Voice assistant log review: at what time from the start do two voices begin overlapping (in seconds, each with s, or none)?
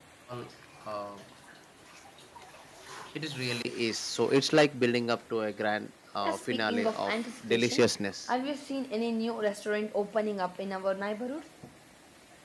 6.2 s